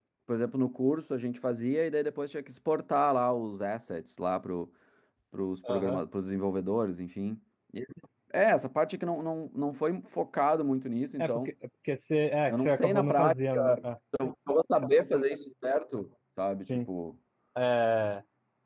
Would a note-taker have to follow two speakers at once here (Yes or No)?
Yes